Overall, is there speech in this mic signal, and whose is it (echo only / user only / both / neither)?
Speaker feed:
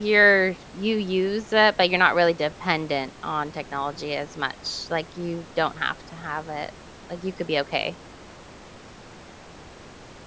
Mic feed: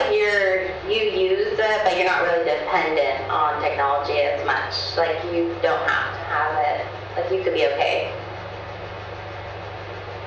echo only